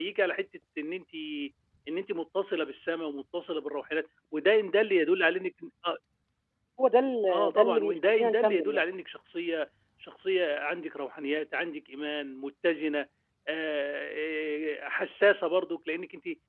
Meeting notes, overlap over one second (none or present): present